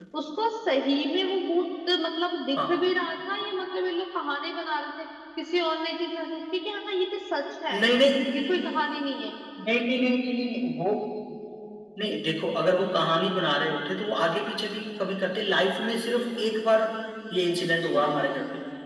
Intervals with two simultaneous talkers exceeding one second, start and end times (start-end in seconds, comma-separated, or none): none